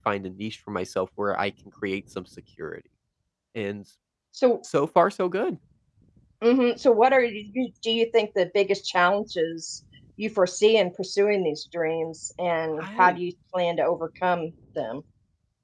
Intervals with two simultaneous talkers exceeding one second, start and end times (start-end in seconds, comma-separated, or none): none